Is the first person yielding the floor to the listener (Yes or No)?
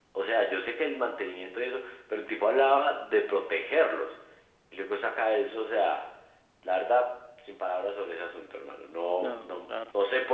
No